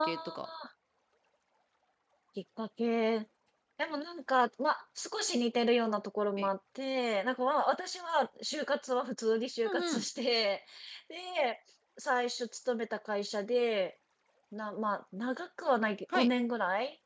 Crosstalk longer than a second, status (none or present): none